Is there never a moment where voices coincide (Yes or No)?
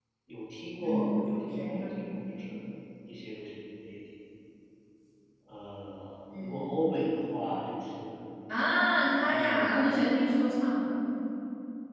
No